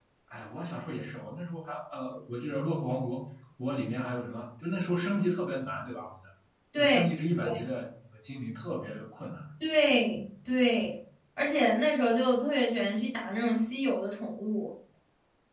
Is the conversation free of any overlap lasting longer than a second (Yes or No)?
Yes